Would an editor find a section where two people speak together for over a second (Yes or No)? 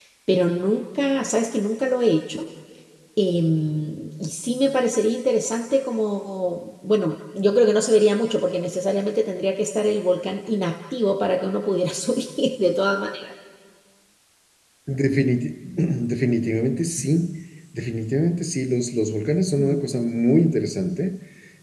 No